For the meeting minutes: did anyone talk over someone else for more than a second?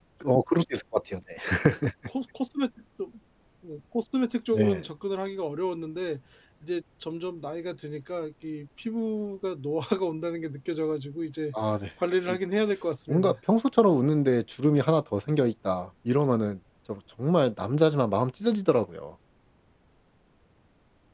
No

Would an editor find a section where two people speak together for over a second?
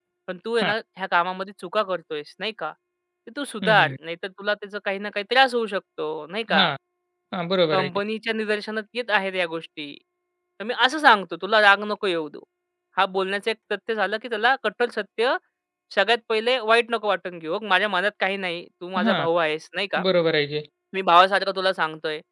No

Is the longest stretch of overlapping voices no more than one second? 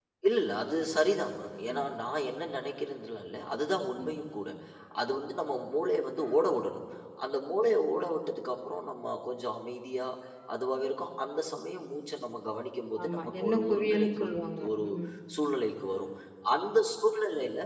No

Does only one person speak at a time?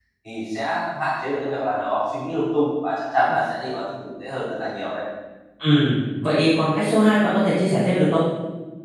Yes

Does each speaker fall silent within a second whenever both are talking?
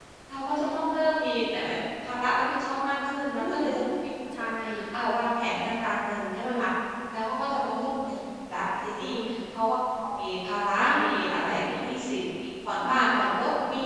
Yes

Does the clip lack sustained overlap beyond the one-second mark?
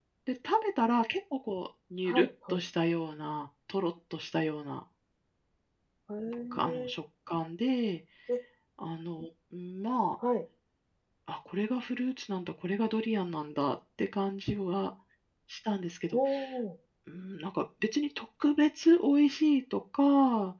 Yes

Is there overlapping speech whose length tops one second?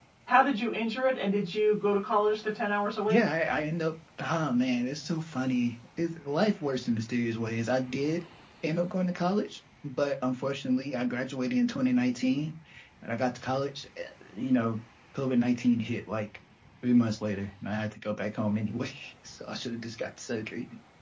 No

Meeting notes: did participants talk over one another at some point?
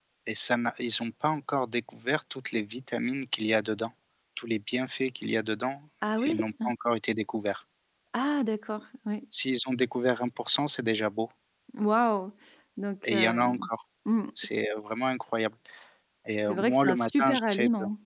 Yes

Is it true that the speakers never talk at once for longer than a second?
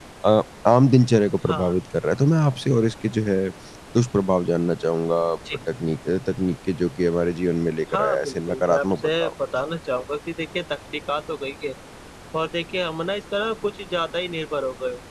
No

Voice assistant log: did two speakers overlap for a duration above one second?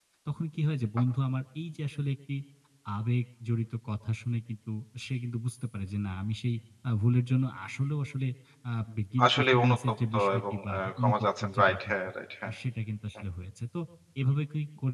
Yes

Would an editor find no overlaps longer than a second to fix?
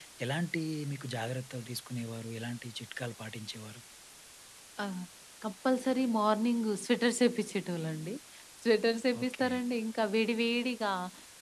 Yes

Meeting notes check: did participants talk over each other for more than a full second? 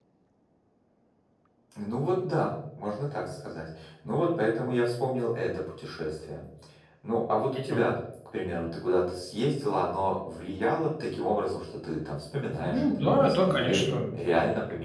Yes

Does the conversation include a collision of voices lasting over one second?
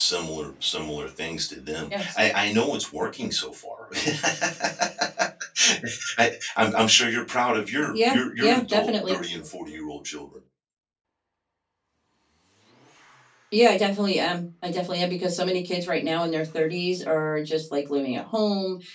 Yes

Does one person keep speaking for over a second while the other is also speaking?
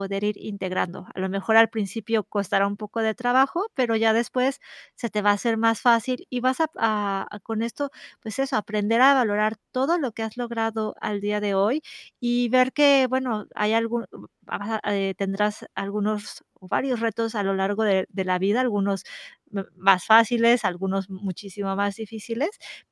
No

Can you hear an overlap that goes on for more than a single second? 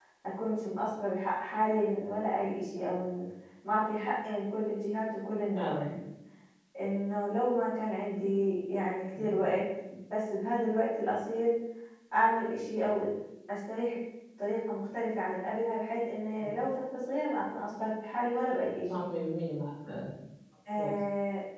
No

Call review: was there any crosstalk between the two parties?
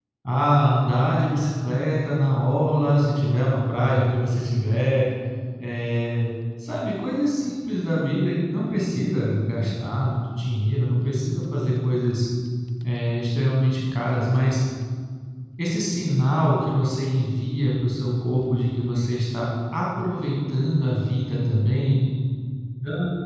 No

